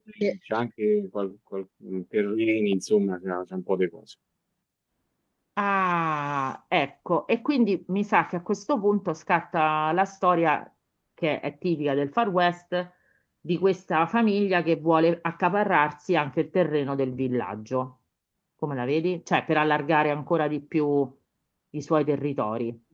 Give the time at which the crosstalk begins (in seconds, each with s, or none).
none